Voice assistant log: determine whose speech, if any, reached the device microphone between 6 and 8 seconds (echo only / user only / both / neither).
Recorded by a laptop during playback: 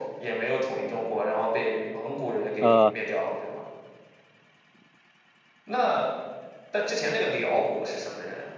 echo only